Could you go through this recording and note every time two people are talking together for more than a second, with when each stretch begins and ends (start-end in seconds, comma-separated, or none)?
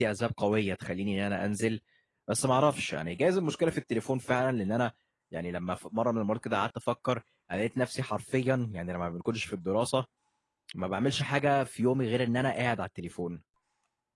none